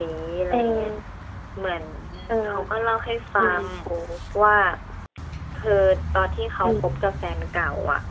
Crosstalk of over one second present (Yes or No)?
No